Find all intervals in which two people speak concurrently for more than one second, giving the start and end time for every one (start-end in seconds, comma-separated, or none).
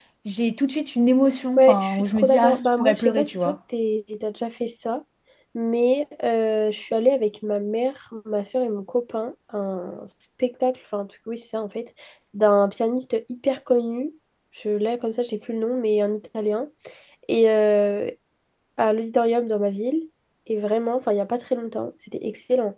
1.6-3.6